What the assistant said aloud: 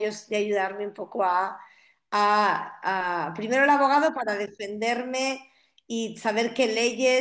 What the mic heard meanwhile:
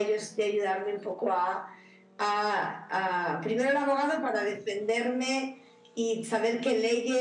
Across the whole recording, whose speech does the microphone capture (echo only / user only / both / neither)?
echo only